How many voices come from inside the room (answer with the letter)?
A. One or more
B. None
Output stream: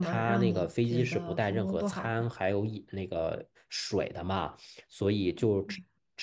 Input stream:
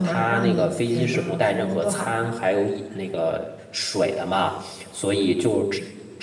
B